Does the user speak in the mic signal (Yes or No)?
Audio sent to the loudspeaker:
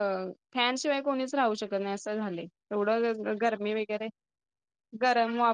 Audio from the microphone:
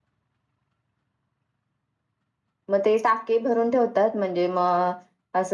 Yes